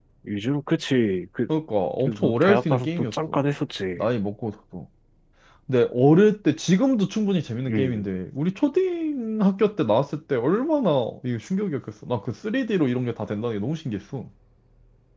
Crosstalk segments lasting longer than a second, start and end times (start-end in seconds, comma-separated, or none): 2.0-3.4